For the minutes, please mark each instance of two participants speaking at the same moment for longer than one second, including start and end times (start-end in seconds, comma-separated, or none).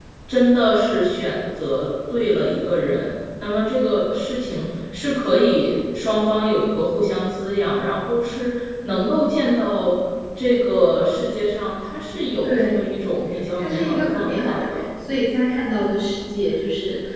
13.6-14.8